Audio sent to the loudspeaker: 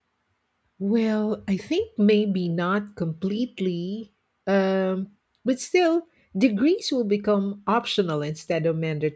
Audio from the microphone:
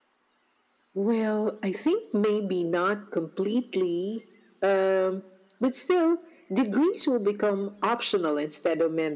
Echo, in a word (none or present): present